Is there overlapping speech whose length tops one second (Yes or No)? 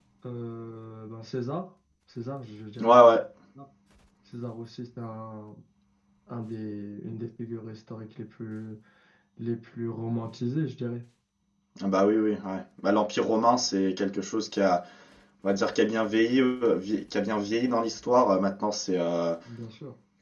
No